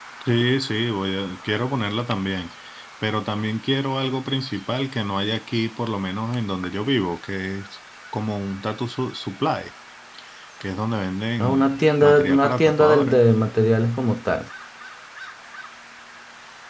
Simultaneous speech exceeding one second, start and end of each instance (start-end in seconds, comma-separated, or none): 11.4-13.2